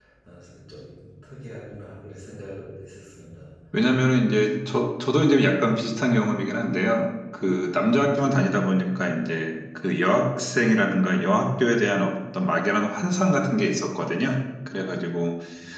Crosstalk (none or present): none